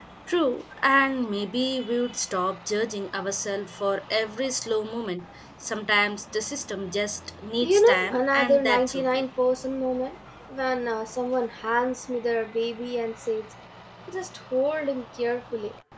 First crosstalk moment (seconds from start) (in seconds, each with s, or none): 7.6 s